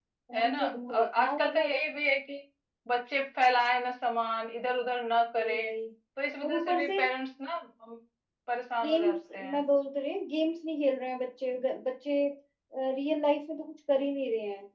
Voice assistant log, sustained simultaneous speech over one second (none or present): present